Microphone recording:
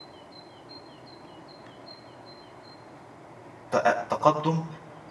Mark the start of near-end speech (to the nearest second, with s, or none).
4 s